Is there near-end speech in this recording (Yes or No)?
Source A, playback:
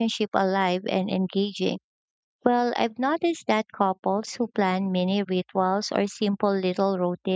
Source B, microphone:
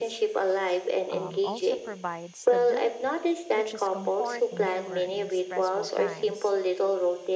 Yes